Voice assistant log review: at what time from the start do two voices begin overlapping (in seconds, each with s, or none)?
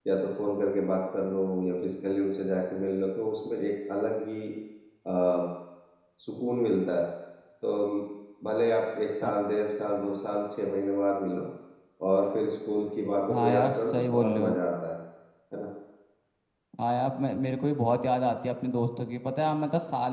13.3 s